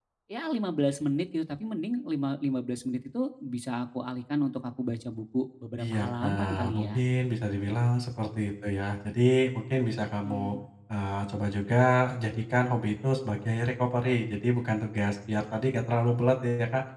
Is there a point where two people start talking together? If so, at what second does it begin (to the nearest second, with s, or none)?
6 s